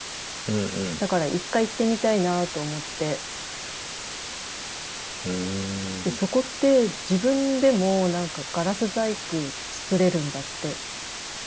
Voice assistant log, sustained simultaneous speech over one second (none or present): none